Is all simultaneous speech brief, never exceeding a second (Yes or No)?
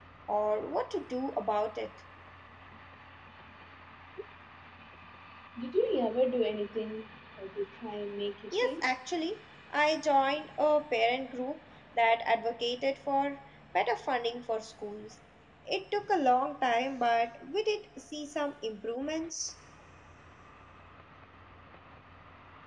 Yes